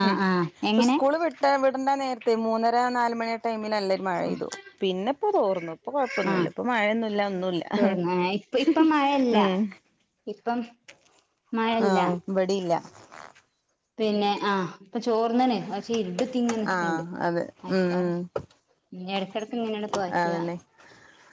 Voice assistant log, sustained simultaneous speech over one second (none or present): none